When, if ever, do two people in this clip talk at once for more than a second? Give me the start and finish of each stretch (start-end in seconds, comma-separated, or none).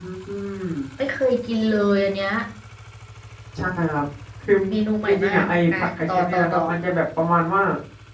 5.1-6.6